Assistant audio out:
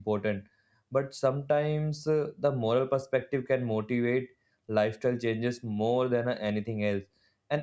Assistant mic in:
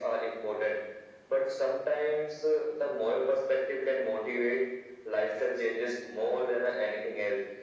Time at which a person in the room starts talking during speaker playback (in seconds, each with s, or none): none